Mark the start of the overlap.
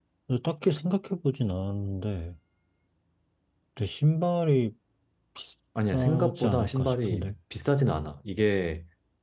5.9 s

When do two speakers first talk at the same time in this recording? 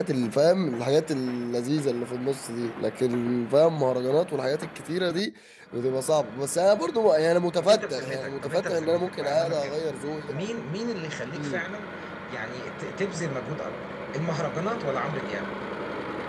7.6 s

